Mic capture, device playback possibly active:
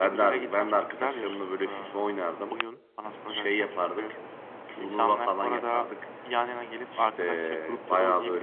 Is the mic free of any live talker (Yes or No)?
Yes